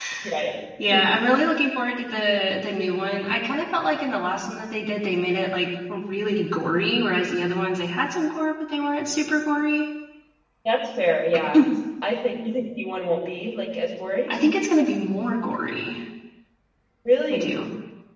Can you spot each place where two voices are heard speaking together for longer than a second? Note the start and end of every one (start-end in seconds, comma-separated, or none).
none